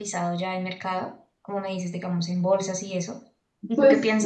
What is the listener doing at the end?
listening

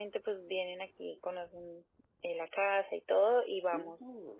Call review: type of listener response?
taking over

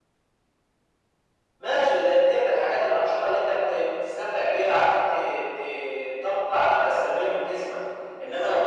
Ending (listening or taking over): listening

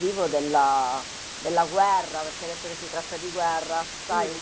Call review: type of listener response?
listening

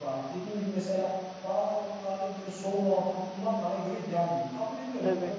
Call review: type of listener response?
listening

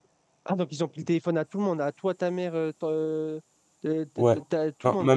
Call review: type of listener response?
taking over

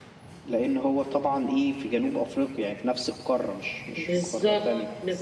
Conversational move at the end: taking over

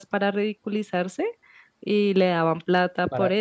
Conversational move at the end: taking over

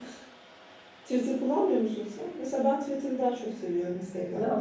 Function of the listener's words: taking over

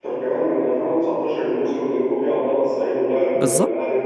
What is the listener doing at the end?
taking over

